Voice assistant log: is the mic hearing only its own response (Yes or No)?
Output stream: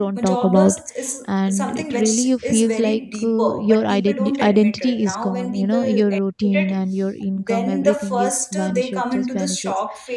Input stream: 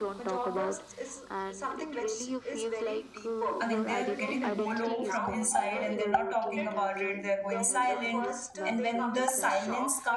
No